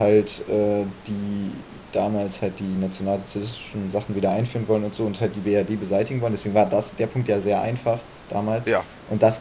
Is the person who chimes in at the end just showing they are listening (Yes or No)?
Yes